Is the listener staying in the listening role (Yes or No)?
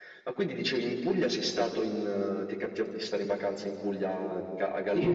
No